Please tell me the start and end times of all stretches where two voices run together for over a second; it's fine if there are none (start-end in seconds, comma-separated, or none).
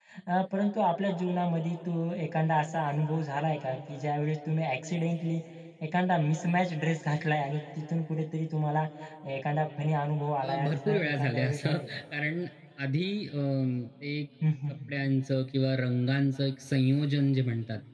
10.4-11.9